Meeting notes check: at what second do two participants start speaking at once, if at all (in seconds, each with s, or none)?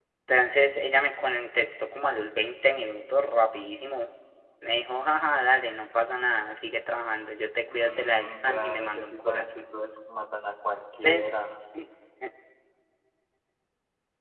7.7 s